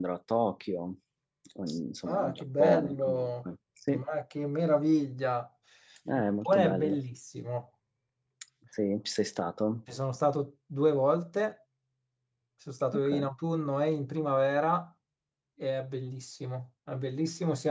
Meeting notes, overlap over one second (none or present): present